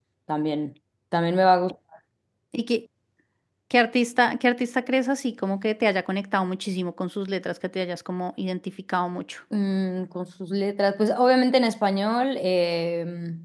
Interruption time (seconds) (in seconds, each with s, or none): none